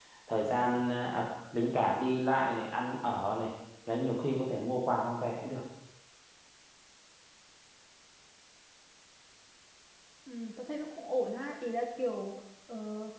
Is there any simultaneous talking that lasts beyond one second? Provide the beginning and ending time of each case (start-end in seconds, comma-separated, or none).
none